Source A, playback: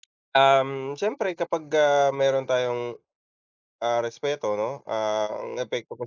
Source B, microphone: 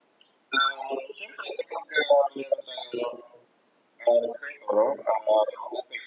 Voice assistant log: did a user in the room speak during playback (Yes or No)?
No